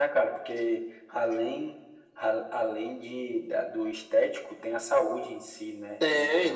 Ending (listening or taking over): taking over